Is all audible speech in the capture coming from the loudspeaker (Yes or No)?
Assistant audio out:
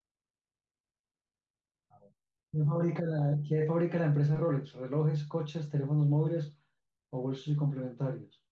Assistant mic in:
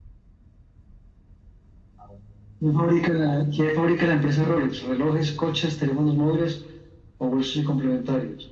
Yes